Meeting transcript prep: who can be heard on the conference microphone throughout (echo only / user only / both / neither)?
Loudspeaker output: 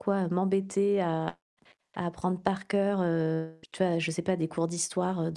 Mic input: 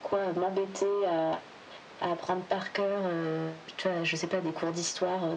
echo only